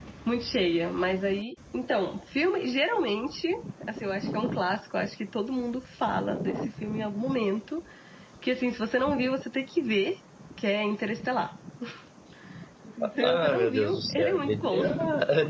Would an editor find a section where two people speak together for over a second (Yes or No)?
Yes